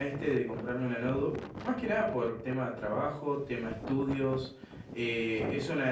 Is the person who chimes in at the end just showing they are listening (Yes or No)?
Yes